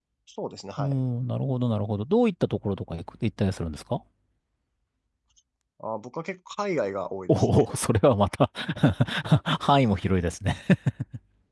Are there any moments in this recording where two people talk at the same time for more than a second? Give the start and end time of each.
none

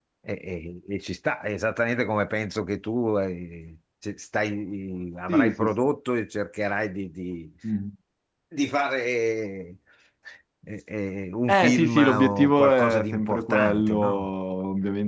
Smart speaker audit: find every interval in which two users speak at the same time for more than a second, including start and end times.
11.5-14.3

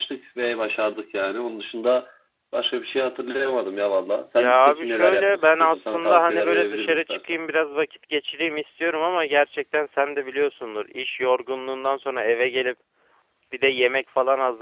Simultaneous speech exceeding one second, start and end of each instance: 4.4-7.4

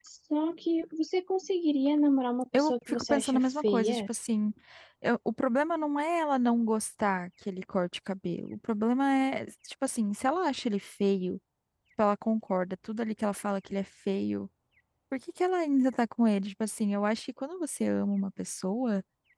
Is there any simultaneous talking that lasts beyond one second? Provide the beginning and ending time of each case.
2.5-4.0

